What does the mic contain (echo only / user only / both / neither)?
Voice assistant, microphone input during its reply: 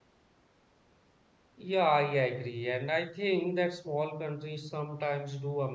user only